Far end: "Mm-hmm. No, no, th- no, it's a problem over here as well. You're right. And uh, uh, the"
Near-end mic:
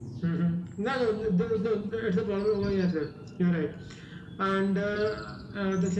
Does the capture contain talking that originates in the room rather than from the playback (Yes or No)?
No